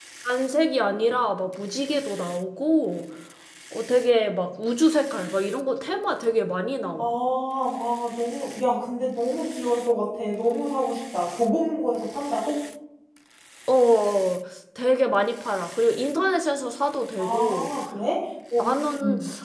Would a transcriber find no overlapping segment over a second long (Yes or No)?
Yes